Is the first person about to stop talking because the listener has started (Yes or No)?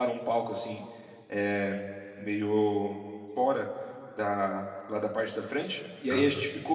No